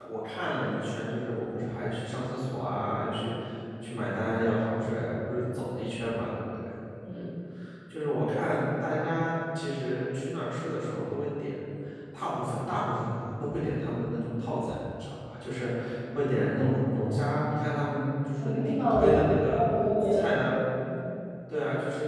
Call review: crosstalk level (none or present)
present